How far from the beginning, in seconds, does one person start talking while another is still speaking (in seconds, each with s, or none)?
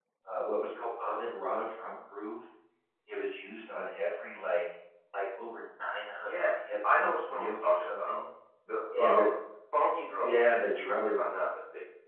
6.2 s